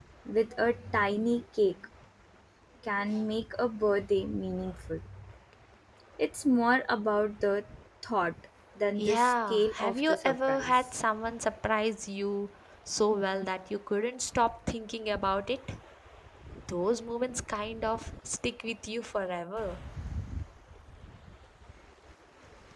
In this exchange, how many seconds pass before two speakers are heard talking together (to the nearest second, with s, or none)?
9 s